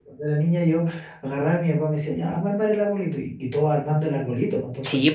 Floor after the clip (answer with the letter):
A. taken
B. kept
A